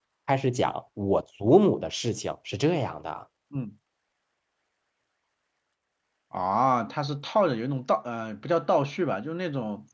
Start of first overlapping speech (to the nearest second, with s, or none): none